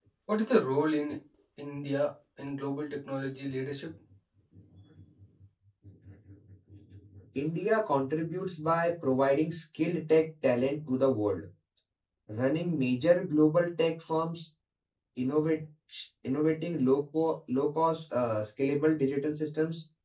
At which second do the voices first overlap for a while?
none

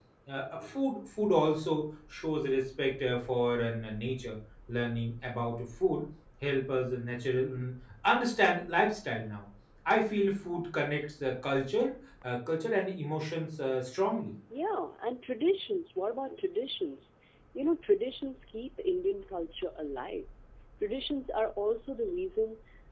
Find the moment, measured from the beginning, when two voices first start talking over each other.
none

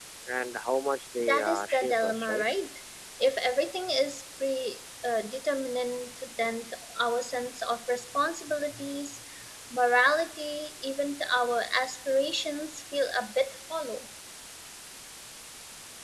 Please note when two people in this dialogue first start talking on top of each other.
1.2 s

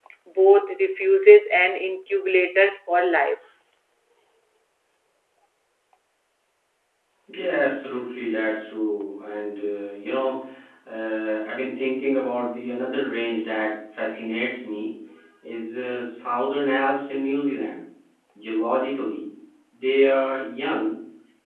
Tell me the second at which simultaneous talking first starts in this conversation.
none

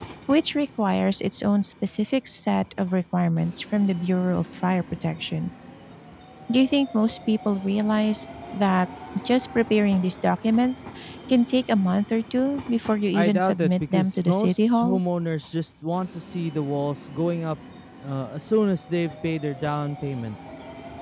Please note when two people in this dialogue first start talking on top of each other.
13.1 s

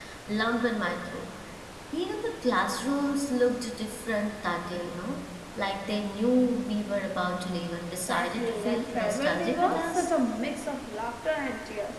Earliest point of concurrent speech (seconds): 8.0 s

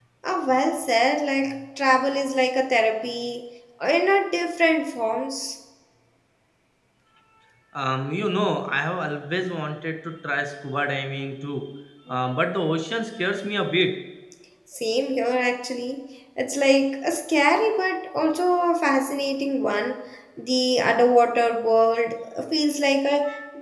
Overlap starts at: none

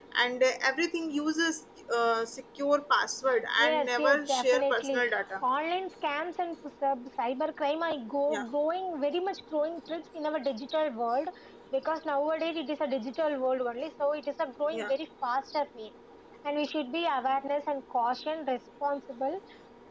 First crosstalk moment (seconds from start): 3.6 s

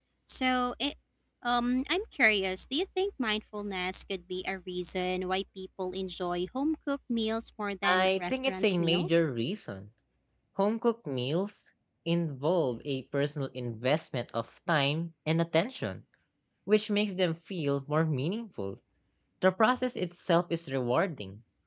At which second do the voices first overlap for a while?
7.8 s

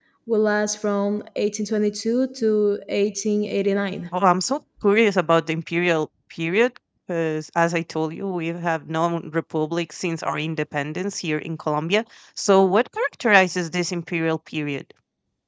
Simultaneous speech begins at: none

